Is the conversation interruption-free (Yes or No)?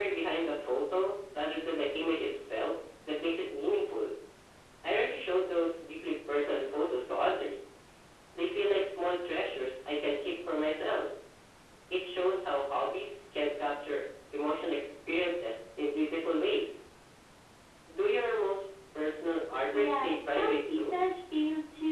No